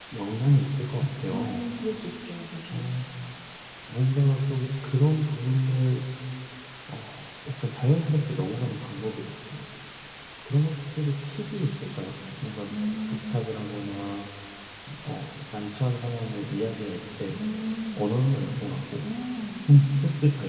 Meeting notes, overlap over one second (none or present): none